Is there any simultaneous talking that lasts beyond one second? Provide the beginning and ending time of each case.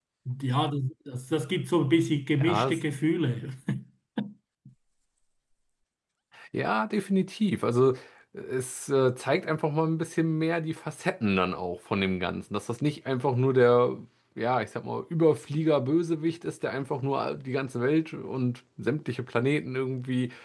none

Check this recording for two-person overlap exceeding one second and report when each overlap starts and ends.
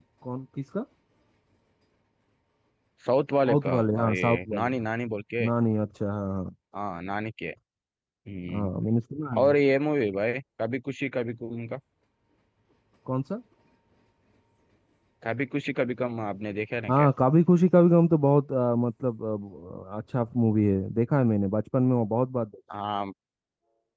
3.5-4.7

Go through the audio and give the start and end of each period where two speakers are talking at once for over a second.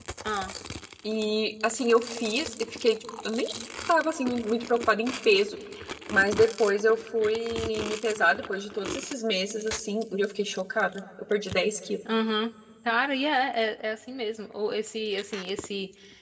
none

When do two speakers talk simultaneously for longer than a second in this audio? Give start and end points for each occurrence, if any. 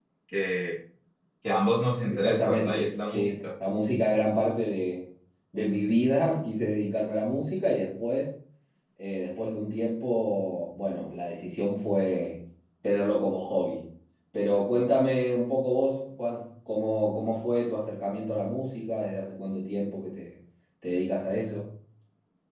2.1-3.4

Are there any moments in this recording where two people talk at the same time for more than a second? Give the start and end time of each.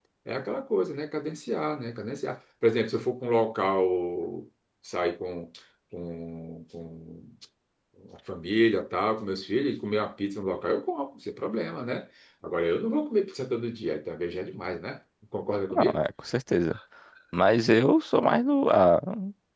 none

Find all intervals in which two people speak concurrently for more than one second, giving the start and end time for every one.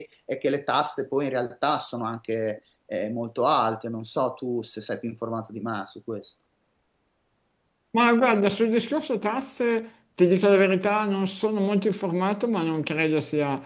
none

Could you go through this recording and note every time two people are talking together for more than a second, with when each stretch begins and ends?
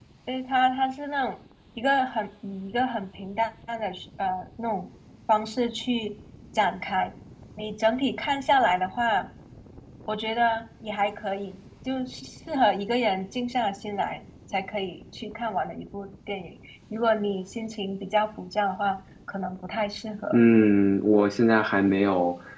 none

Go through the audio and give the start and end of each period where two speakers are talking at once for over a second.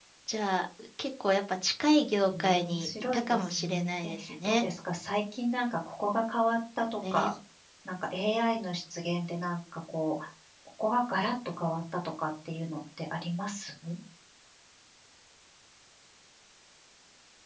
2.4-4.7

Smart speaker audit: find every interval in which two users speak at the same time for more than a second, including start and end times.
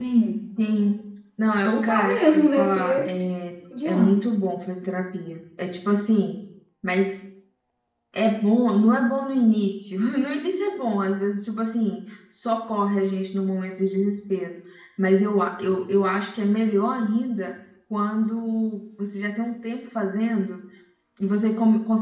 1.6-3.1

